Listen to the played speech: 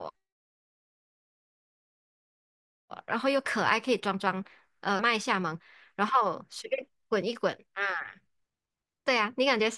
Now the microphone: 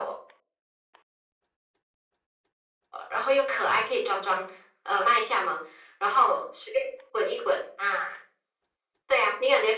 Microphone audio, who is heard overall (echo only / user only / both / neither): echo only